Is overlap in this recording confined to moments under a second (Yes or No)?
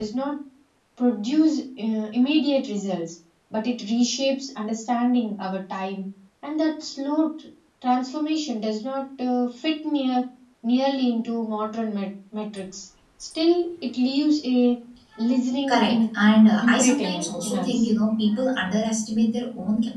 No